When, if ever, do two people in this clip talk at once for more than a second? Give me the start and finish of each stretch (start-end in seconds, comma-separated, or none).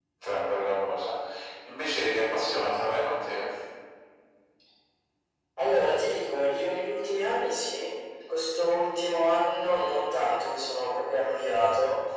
none